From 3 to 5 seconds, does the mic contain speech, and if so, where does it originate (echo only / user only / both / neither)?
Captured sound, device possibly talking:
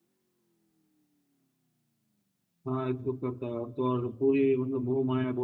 user only